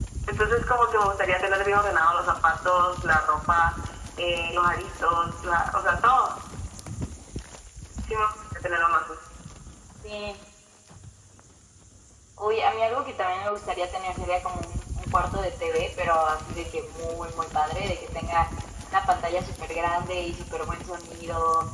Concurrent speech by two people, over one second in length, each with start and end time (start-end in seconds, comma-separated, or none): none